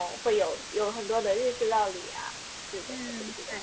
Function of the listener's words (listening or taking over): taking over